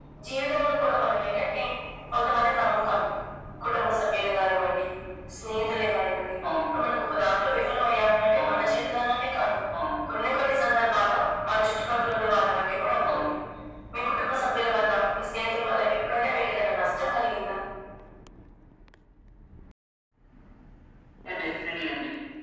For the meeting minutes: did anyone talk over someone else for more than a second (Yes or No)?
No